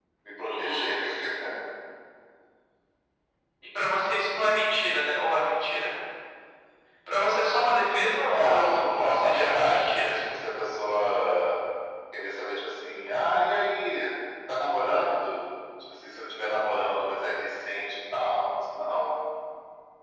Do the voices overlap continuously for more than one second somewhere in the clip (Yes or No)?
Yes